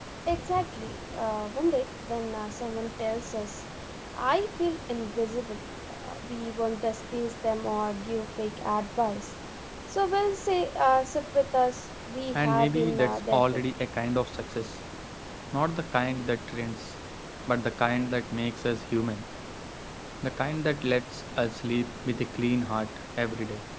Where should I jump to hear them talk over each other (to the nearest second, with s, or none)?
12 s